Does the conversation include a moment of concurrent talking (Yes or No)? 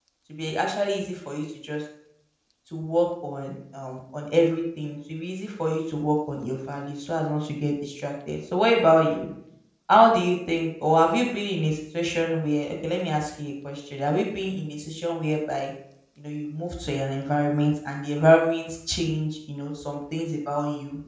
No